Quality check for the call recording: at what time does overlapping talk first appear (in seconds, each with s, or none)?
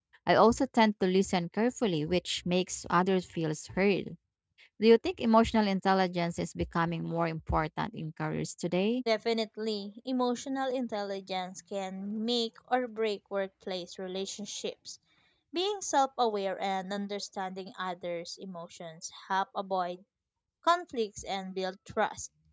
none